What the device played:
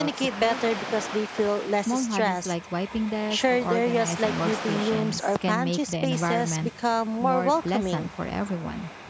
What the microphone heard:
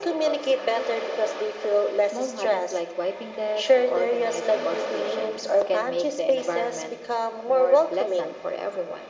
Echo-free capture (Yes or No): No